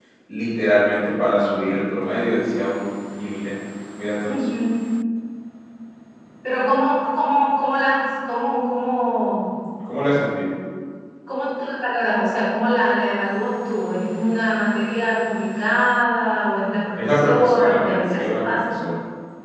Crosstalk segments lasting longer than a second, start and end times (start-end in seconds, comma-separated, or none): 17.0-18.5